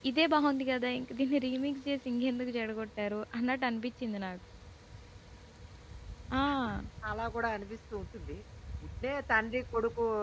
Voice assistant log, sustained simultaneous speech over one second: none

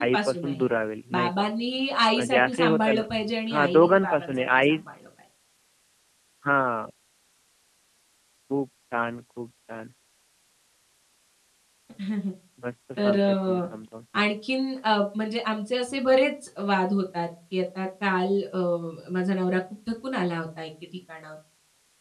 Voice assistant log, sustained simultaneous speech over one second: present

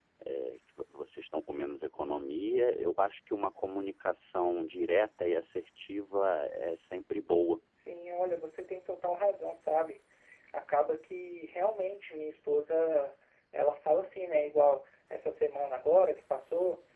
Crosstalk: none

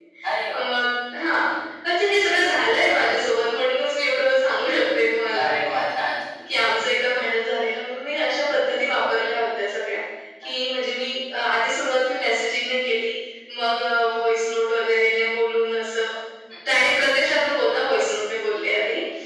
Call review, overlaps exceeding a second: none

